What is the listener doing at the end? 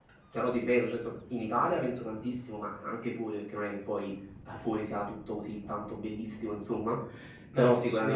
listening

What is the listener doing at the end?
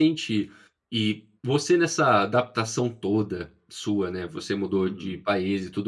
listening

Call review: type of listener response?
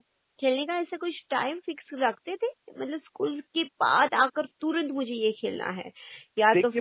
taking over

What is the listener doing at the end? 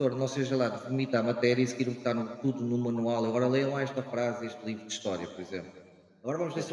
listening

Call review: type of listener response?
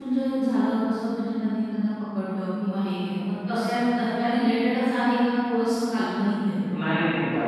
taking over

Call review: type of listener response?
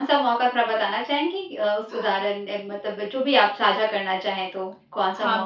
taking over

